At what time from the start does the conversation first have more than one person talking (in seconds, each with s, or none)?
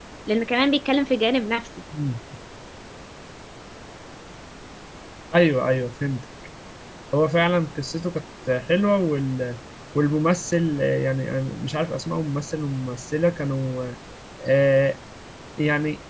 none